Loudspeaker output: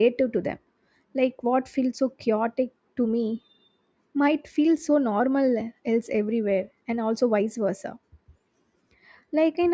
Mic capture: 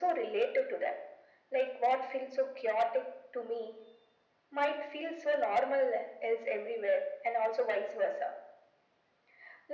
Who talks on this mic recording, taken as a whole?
echo only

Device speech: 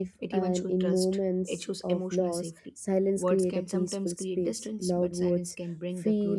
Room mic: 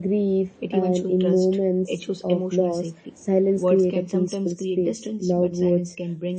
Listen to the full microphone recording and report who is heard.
echo only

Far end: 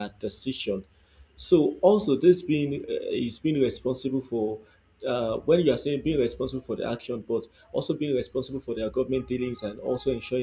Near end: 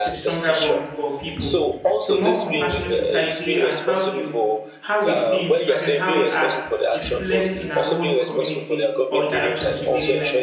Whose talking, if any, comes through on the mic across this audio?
both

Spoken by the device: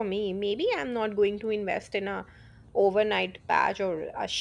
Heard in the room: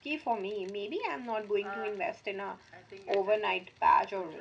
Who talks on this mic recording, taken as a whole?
both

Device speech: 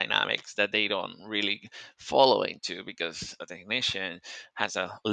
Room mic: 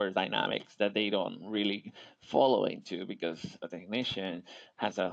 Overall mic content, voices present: echo only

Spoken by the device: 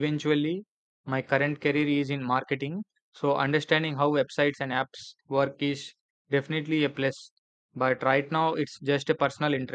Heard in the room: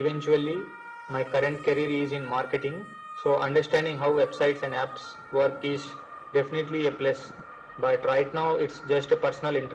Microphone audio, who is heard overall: echo only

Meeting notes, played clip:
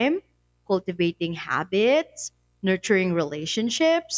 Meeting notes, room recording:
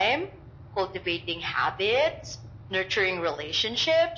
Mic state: echo only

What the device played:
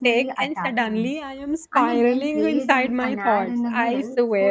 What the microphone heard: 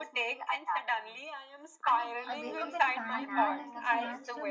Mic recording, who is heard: both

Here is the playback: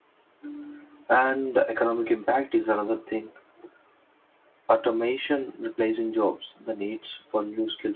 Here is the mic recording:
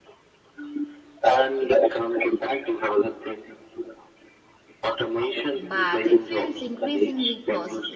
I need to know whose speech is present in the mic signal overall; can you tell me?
both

